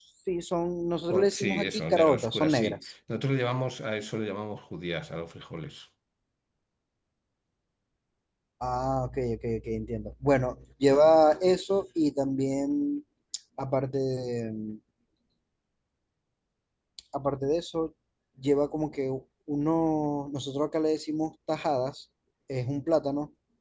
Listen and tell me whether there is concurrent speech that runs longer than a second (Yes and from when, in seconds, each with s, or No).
Yes, from 1.2 s